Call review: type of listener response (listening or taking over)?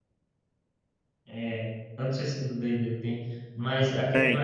taking over